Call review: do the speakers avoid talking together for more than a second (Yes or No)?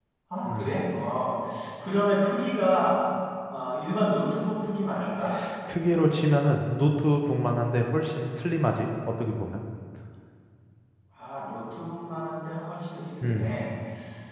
Yes